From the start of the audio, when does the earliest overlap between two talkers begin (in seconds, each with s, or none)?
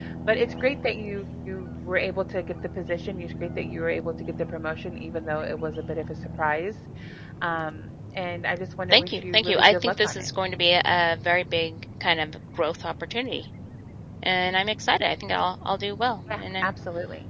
8.9 s